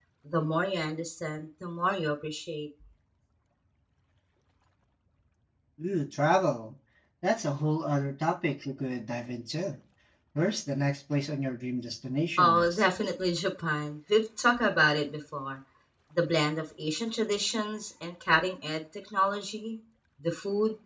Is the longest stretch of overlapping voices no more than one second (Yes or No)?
Yes